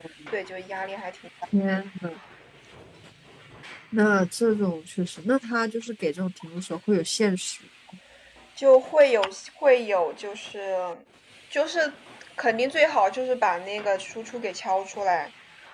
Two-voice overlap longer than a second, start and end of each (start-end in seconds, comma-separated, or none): none